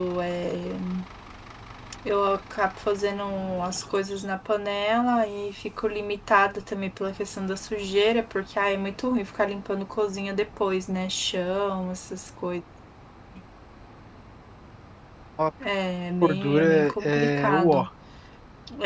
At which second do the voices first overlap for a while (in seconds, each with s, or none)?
16.2 s